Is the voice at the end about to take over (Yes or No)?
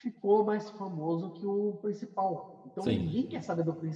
No